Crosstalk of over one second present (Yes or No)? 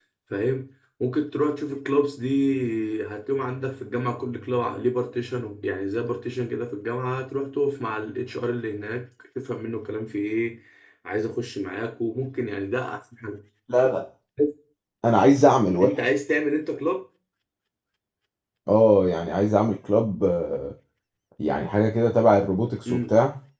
No